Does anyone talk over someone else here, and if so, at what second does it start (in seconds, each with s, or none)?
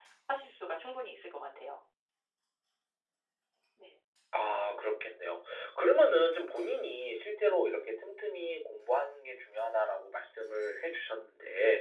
none